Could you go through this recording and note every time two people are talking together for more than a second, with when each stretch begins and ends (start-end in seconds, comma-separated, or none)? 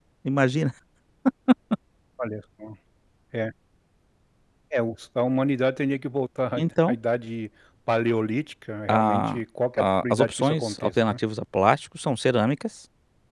9.8-11.2